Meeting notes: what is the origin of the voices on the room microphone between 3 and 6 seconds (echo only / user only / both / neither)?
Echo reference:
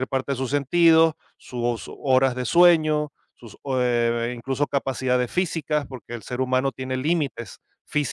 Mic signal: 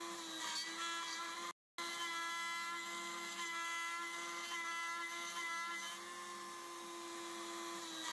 neither